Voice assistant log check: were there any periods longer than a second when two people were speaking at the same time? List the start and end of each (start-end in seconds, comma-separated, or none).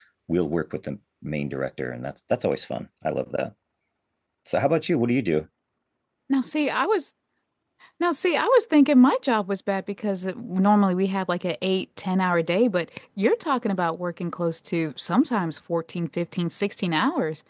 none